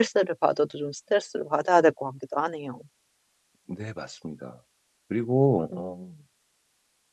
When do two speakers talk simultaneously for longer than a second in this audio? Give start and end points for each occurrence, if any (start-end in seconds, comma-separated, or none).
none